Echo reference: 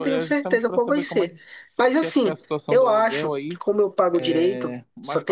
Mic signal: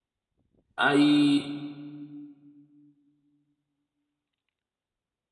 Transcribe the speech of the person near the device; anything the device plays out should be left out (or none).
Aí,